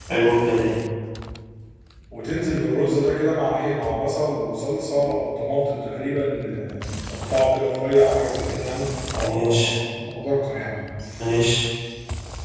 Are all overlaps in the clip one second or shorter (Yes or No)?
Yes